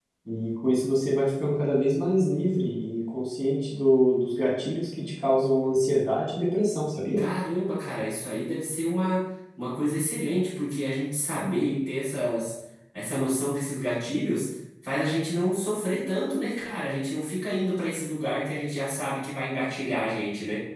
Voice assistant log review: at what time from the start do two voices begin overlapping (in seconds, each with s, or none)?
none